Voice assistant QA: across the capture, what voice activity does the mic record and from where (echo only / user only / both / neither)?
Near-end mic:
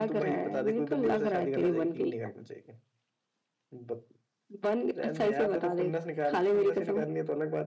echo only